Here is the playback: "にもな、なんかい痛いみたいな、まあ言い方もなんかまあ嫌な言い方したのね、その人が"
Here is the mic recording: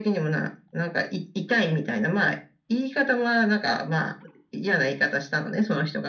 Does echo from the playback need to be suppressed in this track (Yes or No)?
Yes